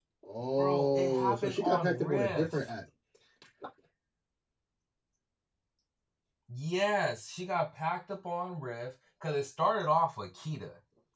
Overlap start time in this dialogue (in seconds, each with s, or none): 0.6 s